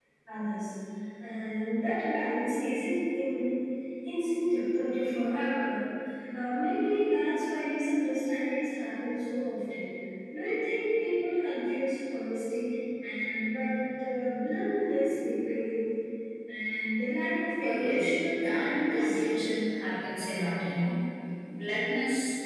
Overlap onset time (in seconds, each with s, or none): 17.6 s